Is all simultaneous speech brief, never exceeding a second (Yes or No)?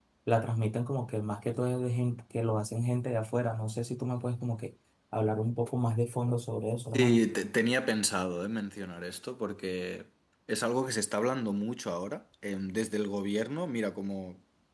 Yes